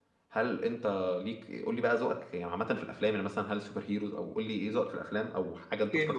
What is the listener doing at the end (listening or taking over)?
taking over